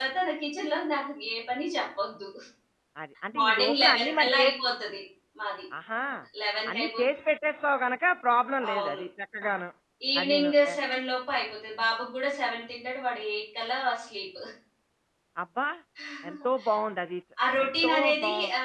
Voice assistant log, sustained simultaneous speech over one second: present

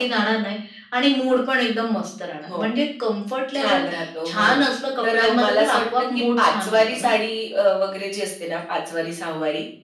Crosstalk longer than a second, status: present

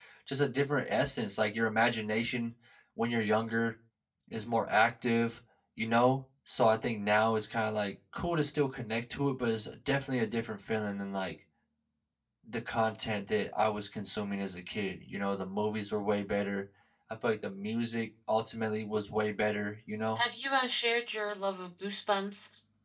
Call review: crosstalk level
none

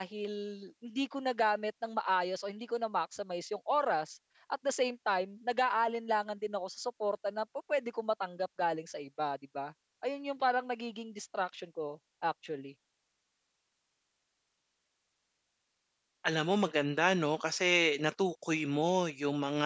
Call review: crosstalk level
none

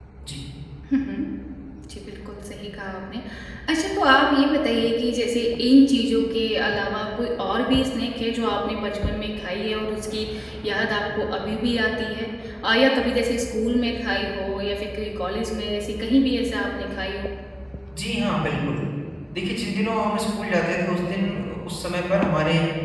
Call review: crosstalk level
none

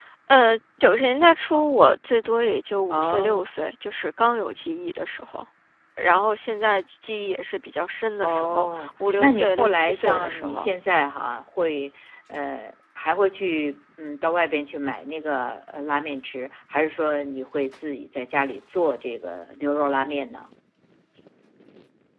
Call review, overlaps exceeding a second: present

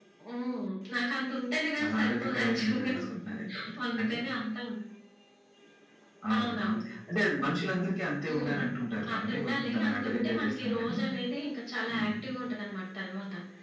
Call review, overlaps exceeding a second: present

